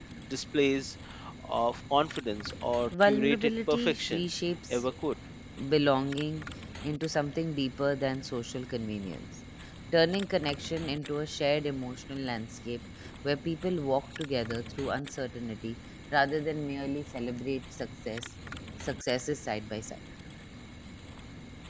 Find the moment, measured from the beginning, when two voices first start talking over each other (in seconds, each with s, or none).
2.9 s